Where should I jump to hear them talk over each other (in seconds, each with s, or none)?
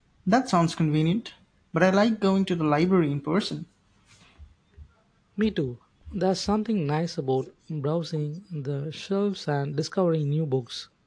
none